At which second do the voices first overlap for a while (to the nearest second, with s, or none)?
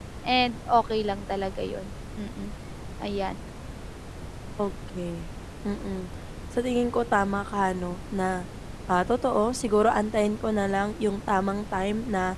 none